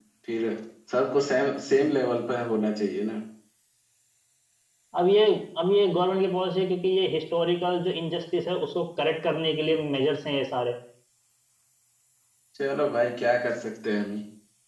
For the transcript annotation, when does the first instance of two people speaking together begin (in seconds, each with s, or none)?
none